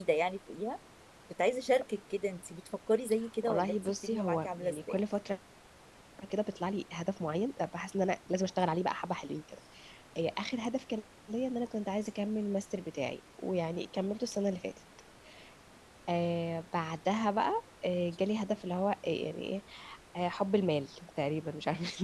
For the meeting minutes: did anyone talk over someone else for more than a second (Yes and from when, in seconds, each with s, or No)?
Yes, from 3.4 s